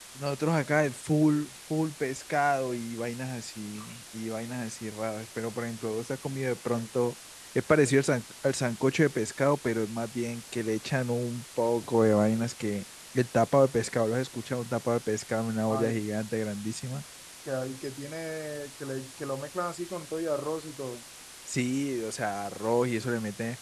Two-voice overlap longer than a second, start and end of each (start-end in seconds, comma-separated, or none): none